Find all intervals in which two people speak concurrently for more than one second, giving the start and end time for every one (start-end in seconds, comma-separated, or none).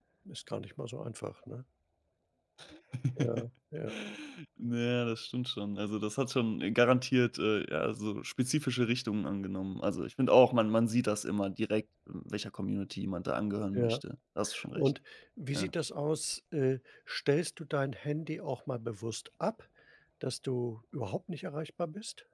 none